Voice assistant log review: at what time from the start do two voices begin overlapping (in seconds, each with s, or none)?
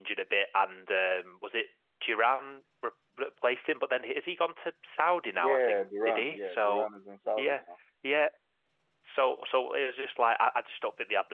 5.3 s